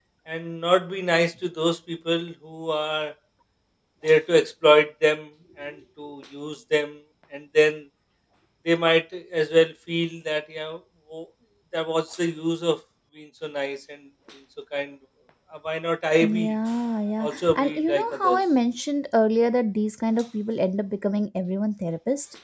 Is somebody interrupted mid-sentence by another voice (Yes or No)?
Yes